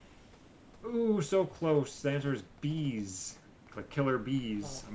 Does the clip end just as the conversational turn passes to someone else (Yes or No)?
Yes